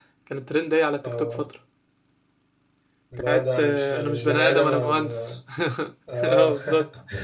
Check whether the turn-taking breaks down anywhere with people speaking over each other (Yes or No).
Yes